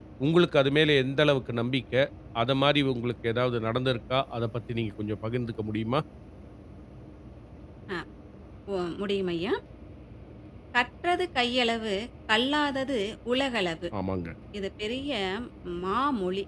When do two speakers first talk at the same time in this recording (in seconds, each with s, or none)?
none